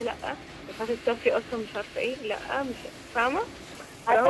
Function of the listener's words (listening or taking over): taking over